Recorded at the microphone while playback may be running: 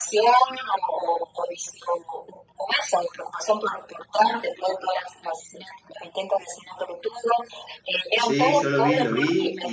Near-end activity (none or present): present